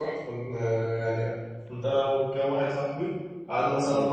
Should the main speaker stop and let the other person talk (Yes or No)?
No